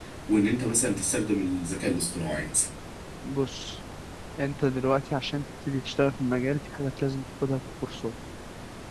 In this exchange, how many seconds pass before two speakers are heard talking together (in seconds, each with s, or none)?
none